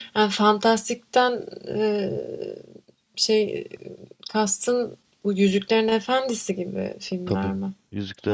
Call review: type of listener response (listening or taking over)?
taking over